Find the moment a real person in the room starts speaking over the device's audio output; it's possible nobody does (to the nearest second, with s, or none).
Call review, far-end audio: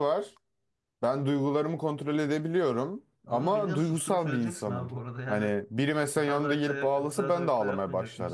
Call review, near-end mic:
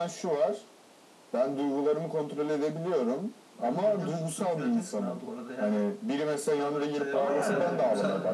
7 s